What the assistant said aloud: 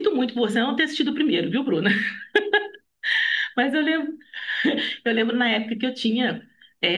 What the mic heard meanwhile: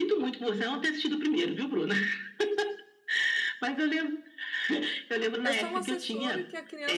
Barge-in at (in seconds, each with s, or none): 5.4 s